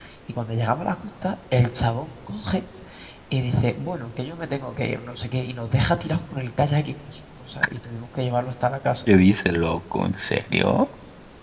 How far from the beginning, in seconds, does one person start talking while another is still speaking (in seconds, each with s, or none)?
none